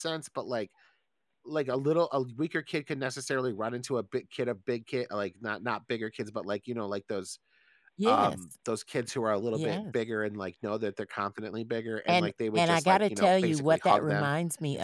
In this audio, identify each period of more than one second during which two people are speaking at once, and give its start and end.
12.1-14.3

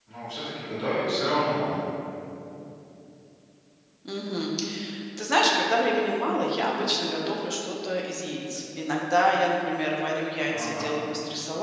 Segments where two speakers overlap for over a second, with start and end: none

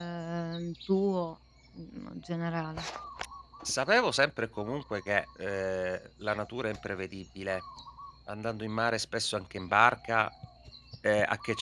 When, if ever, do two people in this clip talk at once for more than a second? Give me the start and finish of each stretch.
none

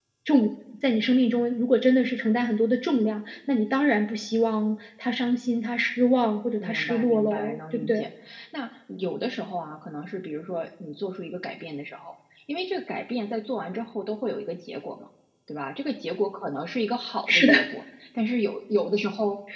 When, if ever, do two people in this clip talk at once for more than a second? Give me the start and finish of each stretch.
6.6-8.1

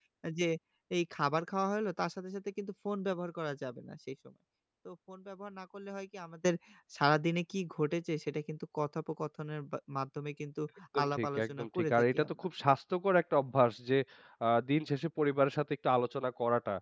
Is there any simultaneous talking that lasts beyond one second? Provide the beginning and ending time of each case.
11.0-12.5

